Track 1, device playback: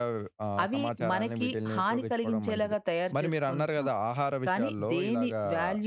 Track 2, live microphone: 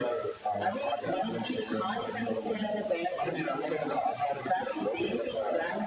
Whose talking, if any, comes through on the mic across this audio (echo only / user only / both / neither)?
echo only